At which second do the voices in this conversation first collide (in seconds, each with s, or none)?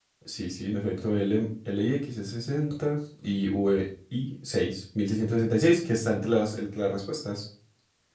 none